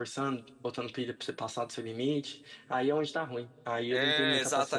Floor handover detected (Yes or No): Yes